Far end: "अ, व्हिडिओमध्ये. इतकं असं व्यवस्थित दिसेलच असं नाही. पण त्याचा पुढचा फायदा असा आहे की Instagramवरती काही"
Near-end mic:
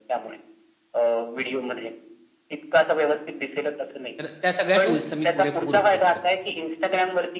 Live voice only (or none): तर त्या सगळ्या टूल्सचा मी पुरेपूर उपयोग करतो.